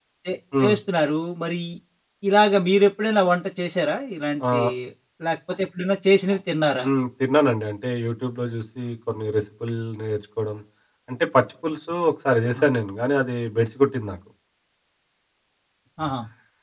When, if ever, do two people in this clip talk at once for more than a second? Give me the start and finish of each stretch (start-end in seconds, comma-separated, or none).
none